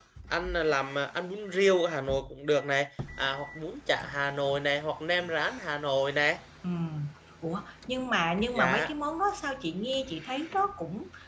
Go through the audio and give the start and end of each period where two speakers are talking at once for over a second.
none

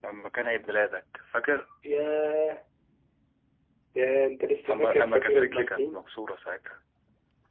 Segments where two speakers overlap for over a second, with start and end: 4.7-6.0

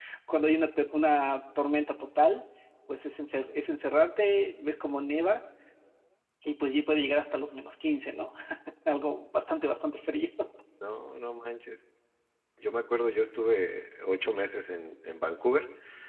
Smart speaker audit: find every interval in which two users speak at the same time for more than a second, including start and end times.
none

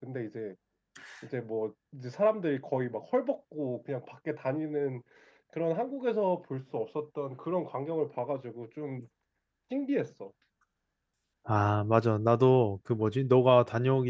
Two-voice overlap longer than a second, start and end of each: none

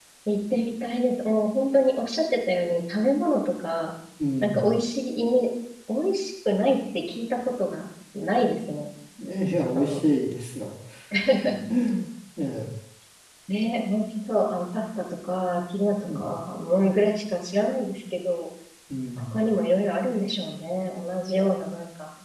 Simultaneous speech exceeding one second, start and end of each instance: none

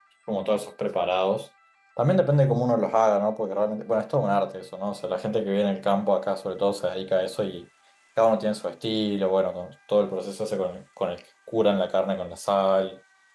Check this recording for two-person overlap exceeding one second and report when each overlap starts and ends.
none

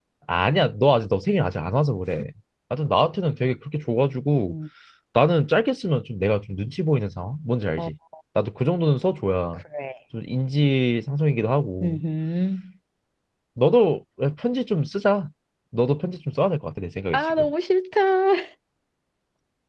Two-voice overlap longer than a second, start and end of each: none

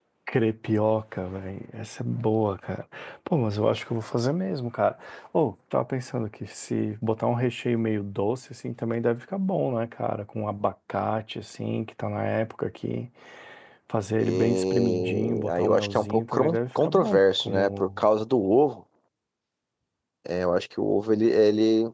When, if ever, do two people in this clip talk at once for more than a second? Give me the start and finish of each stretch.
14.2-17.9

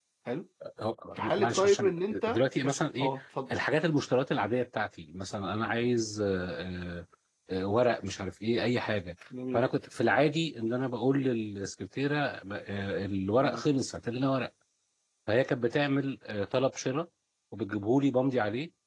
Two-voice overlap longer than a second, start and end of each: 1.4-3.1

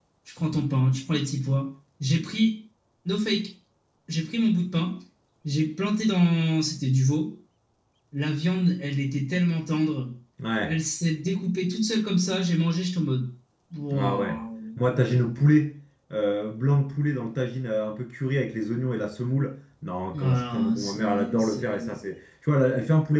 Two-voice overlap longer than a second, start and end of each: 20.1-21.9

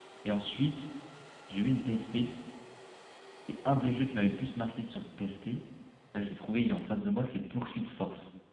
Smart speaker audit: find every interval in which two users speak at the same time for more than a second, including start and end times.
none

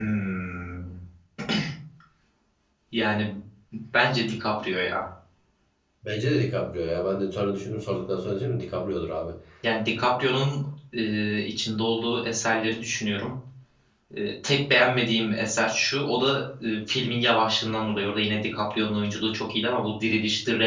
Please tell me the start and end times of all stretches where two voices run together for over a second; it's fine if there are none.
none

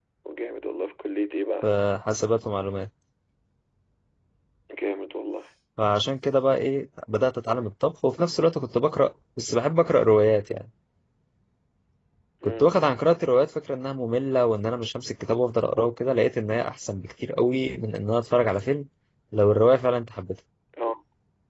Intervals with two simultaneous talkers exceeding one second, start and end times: none

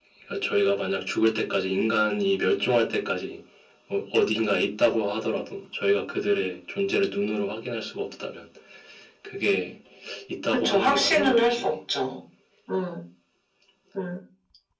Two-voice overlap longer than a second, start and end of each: 10.5-11.8

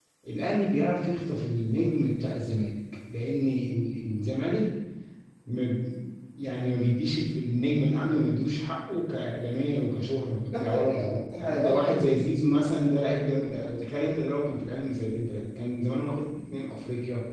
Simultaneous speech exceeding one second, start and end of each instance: 10.6-12.1

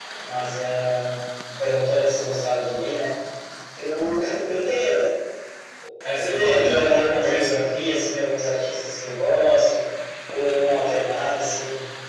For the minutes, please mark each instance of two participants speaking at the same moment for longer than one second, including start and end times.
6.1-7.5

